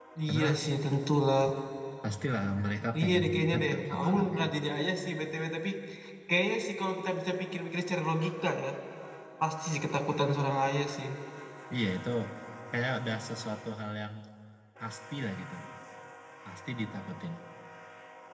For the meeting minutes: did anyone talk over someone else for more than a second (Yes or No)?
Yes